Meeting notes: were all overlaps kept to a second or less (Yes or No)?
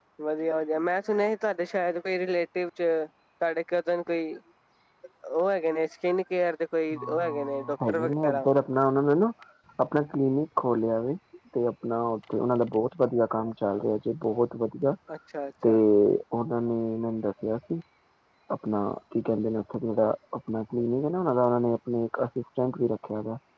No